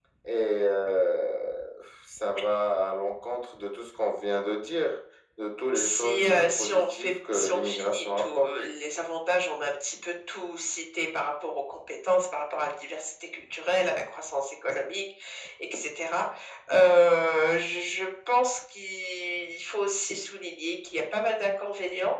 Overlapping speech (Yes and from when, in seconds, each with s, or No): Yes, from 5.7 s